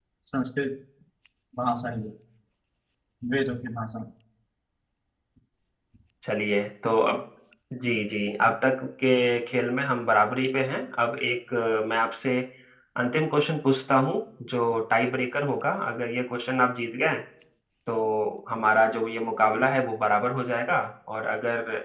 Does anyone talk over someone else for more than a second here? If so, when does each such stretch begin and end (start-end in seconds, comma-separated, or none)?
none